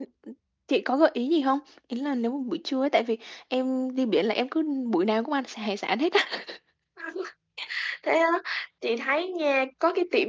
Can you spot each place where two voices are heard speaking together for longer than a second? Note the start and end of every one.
none

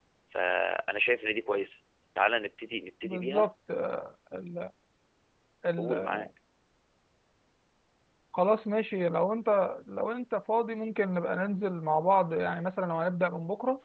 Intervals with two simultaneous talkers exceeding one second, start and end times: none

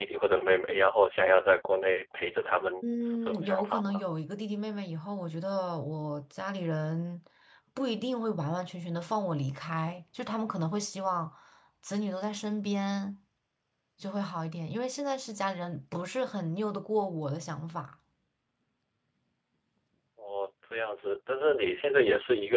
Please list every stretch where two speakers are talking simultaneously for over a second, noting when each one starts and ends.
2.8-4.0

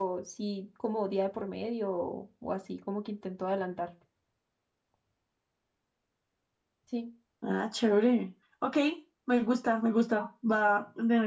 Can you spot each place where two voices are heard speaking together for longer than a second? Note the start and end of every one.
none

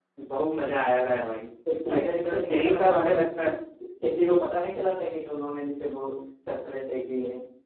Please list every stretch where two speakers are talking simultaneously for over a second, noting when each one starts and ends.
1.9-3.5

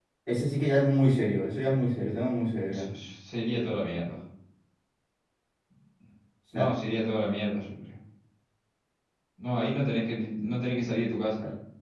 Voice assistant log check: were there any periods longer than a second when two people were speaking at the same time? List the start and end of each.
none

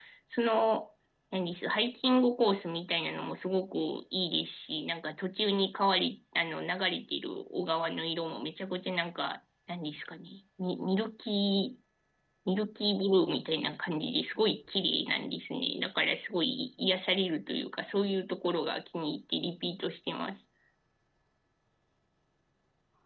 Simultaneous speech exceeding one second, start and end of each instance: none

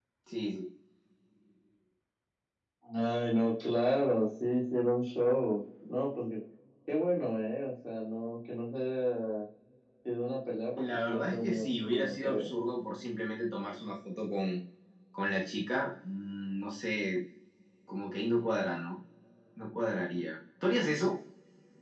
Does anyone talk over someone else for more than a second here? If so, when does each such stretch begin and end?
10.8-12.5

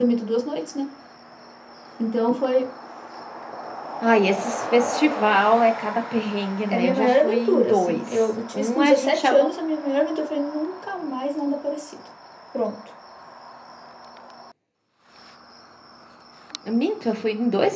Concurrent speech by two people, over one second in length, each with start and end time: 6.7-9.5

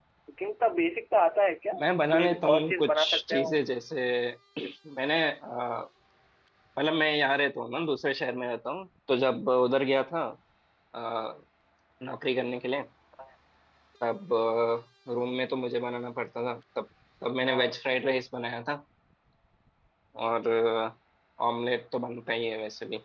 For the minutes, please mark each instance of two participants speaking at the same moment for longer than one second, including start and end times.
2.1-3.5

